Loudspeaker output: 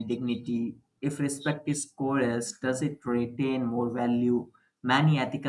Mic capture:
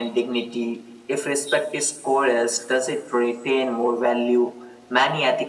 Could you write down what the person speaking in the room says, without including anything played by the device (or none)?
none